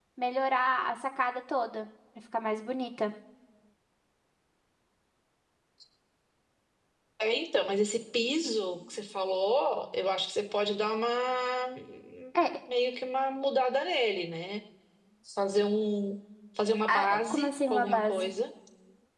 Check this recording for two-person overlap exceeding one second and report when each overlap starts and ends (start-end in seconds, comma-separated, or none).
16.9-18.3